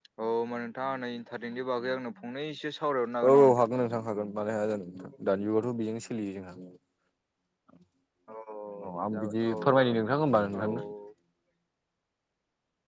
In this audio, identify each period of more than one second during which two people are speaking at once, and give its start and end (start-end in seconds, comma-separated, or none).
8.8-10.2